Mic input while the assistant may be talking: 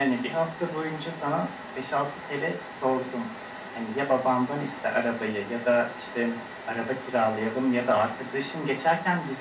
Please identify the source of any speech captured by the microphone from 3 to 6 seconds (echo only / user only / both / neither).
echo only